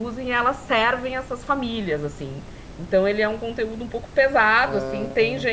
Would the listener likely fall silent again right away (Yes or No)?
Yes